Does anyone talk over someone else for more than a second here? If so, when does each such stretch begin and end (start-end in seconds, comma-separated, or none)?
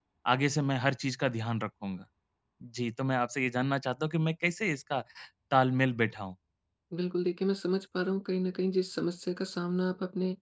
none